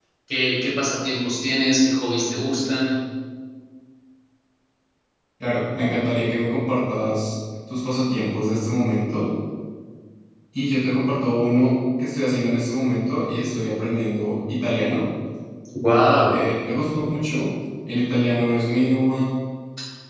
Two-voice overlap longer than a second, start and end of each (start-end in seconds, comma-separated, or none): none